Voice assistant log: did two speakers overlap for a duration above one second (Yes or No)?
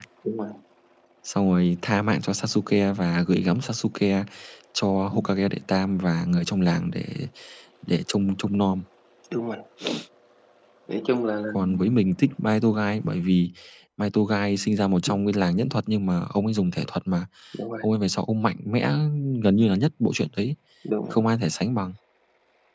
No